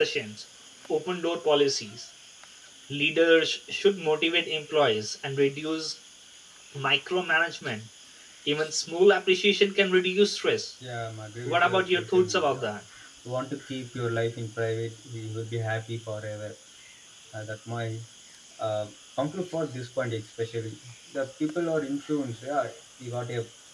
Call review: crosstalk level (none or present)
present